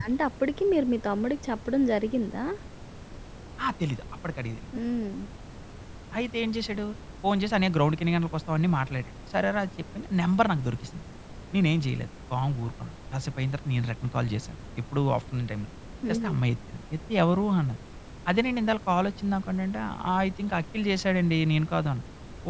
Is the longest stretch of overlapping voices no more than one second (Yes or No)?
Yes